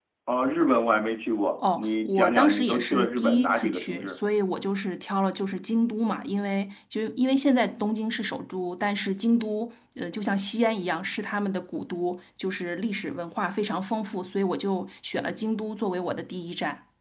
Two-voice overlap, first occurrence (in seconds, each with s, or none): 1.6 s